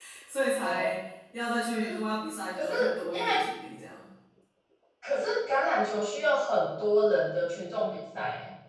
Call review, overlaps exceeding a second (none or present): none